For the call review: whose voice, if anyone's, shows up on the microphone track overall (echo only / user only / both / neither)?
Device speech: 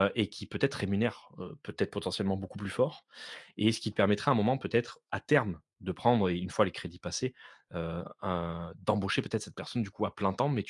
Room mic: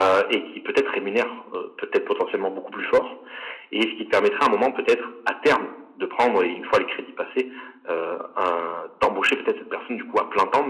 echo only